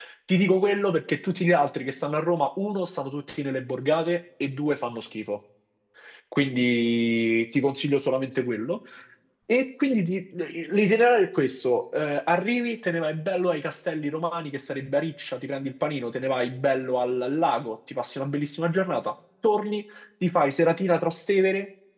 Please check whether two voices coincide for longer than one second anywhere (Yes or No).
No